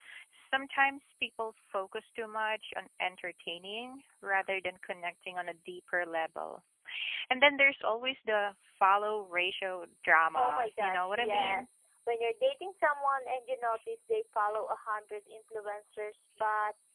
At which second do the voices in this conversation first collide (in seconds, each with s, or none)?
10.3 s